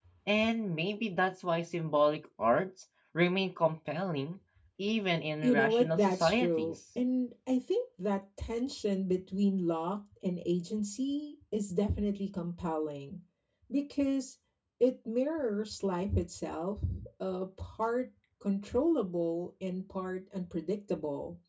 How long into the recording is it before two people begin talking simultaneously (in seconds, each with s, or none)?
5.4 s